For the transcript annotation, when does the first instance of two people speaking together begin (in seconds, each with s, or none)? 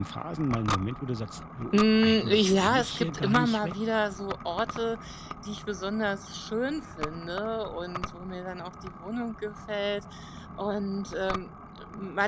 1.7 s